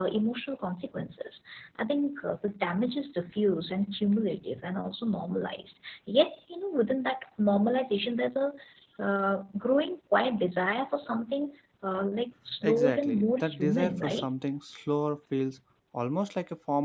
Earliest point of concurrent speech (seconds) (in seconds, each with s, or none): 12.6 s